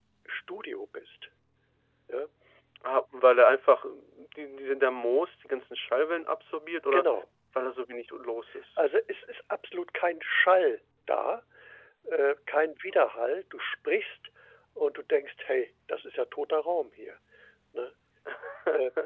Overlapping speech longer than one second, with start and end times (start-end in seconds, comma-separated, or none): none